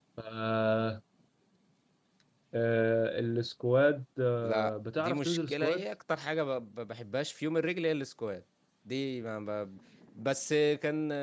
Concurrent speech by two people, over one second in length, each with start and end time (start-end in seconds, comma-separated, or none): 4.4-5.8